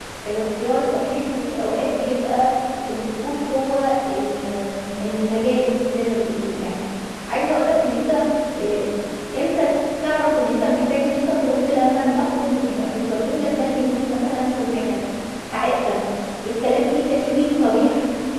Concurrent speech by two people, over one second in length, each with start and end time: none

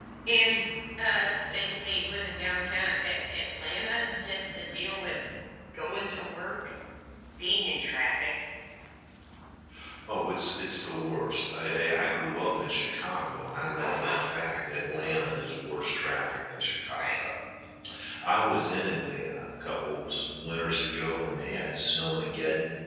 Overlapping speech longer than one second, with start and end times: none

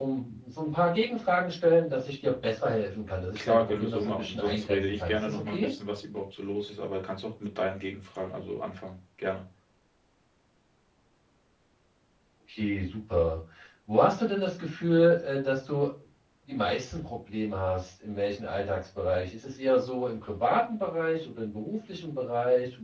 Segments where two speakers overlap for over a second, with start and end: 3.4-5.7

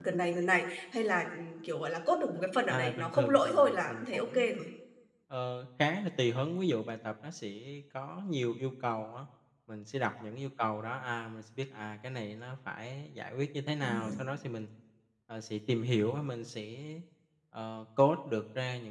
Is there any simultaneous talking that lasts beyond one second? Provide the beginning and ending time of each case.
2.7-4.6

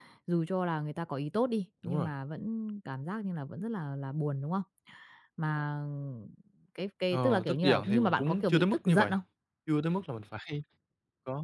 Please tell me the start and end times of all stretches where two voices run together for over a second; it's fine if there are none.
7.1-9.1

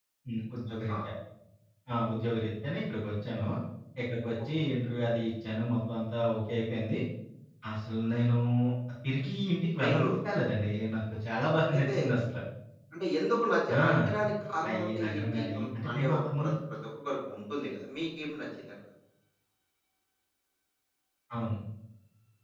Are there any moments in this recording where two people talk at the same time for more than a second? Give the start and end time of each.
14.7-16.5

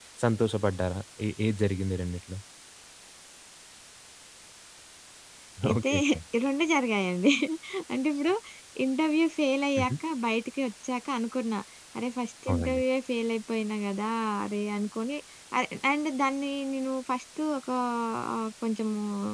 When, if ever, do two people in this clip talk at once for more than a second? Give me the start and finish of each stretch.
none

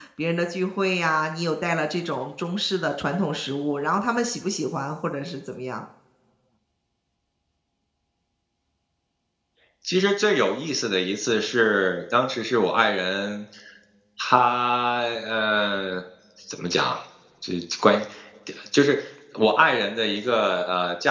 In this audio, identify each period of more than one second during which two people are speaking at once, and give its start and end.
none

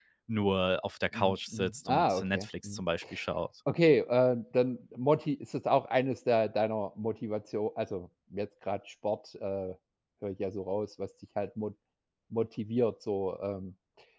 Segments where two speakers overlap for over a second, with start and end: 1.1-2.8

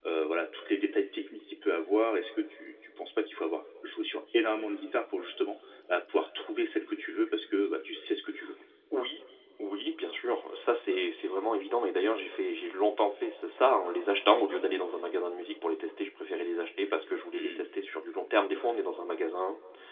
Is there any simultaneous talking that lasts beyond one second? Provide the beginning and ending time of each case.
none

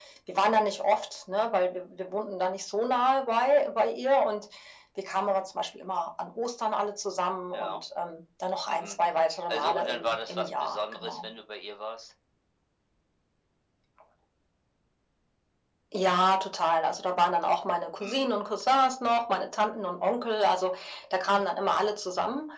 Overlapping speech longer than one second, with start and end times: 9.5-11.3

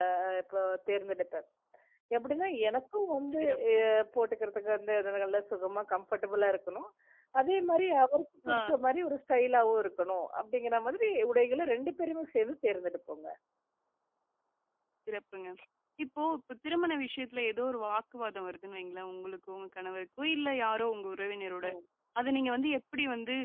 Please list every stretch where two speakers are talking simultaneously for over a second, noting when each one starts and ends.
none

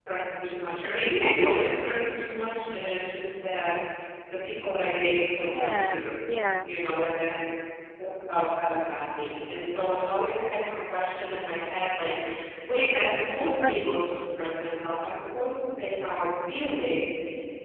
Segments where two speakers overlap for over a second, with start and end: 5.4-6.7

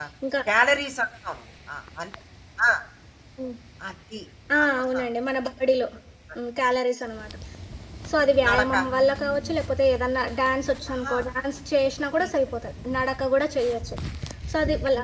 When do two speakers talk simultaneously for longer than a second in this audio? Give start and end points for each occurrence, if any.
none

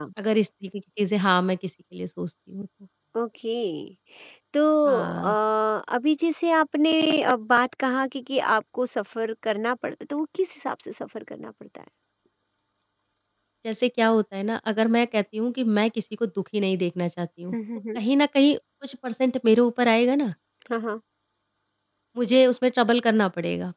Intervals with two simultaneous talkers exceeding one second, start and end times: none

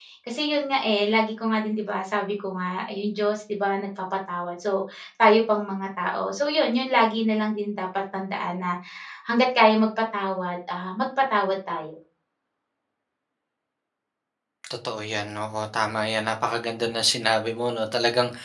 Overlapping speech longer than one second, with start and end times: none

